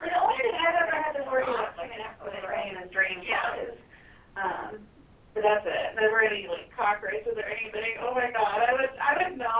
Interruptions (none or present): present